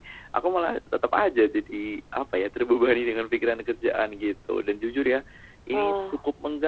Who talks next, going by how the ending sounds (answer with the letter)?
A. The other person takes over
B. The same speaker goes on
B